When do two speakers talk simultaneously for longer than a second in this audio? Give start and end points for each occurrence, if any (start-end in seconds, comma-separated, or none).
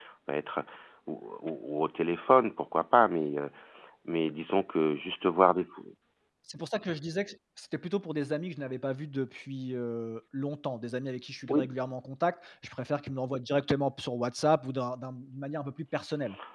none